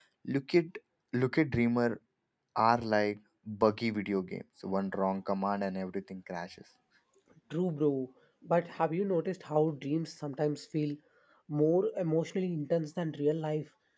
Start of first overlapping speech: none

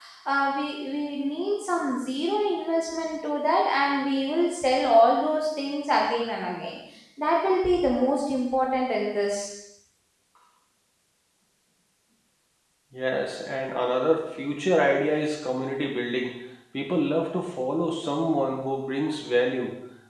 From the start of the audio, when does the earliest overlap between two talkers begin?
none

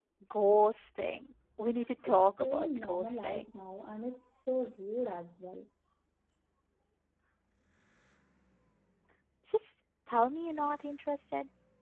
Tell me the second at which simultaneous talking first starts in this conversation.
2.0 s

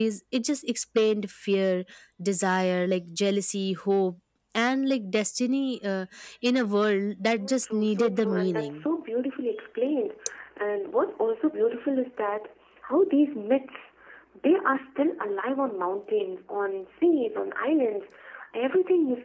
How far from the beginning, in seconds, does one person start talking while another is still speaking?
7.4 s

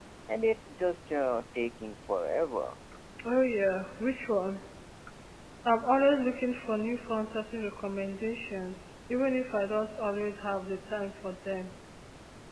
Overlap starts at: none

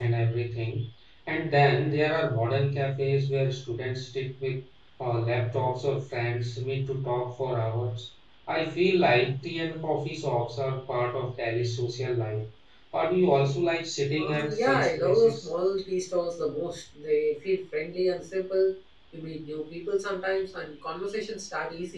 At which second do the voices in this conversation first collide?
14.2 s

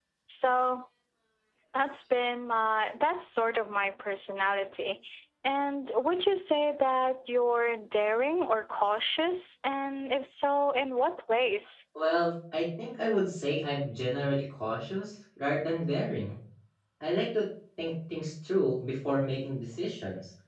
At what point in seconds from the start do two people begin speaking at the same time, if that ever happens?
none

